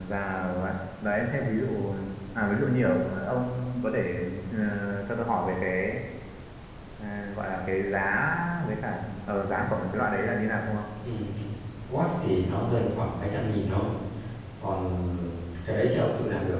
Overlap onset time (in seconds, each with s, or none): none